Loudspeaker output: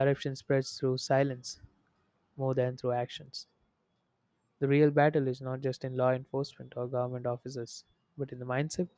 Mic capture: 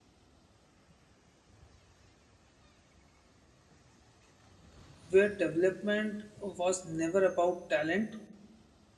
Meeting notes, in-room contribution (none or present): present